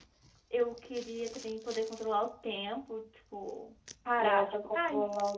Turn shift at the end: Yes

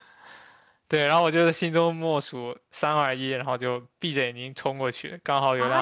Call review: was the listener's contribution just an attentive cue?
No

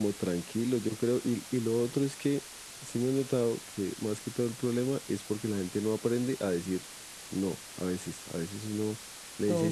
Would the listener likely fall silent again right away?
Yes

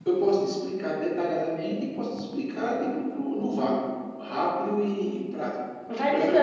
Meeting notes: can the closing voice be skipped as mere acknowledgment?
No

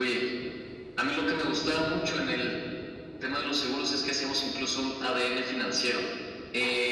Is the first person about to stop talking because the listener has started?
No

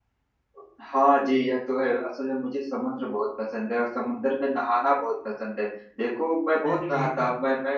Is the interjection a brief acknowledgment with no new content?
Yes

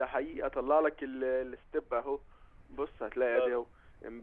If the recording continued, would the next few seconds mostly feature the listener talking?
No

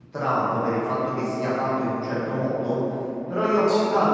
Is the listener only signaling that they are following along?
Yes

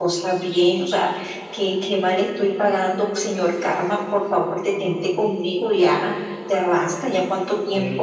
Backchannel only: No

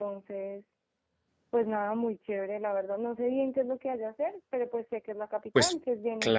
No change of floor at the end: No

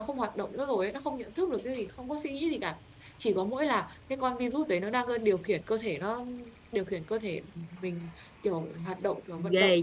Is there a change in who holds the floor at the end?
Yes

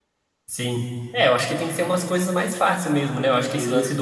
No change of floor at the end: Yes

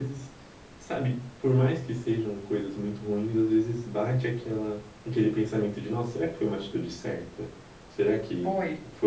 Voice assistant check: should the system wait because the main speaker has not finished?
No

